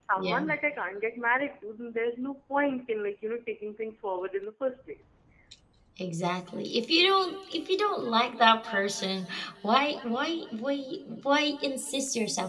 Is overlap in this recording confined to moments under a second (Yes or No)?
Yes